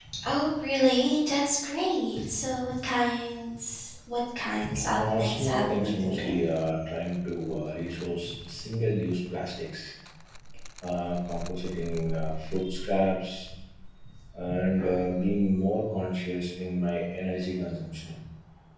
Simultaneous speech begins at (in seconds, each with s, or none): 5.0 s